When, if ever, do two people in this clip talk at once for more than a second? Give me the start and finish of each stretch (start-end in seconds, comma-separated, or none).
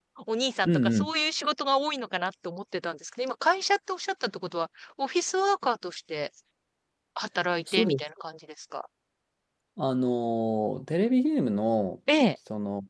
none